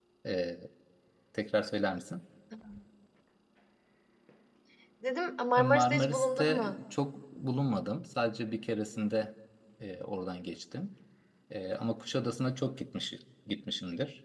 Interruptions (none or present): present